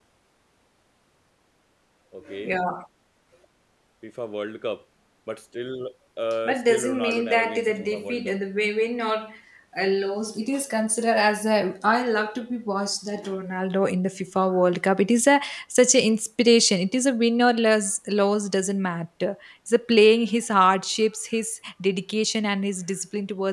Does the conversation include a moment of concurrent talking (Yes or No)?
Yes